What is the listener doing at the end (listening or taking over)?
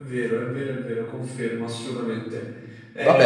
taking over